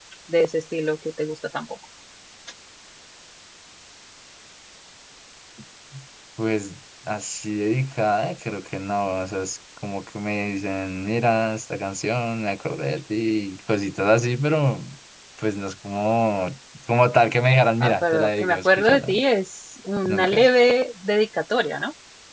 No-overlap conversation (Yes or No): No